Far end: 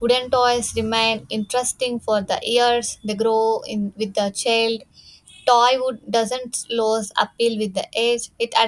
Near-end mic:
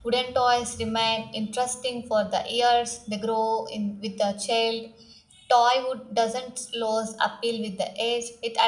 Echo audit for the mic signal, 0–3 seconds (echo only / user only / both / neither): echo only